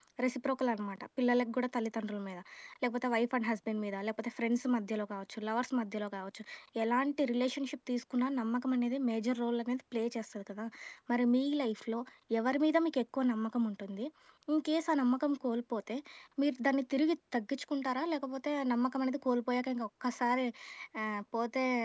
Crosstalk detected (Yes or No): No